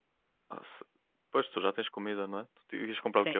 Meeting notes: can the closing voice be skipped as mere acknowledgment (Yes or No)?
No